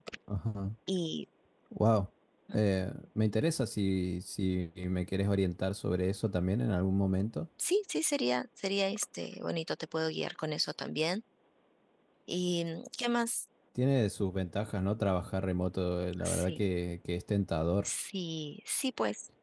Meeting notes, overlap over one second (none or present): none